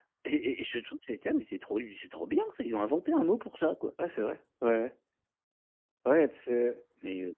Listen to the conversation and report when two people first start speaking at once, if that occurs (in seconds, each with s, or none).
none